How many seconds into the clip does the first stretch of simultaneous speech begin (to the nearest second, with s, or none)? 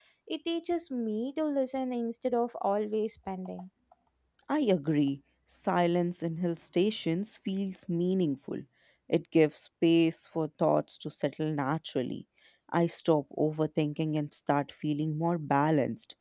none